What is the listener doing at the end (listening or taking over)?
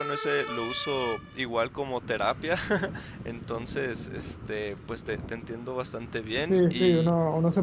taking over